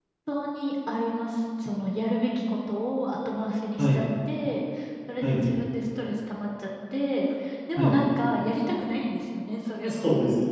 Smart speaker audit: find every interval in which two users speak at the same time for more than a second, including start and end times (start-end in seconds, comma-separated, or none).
none